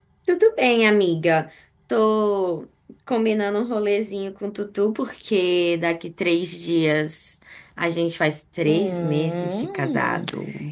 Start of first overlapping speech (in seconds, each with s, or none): 8.6 s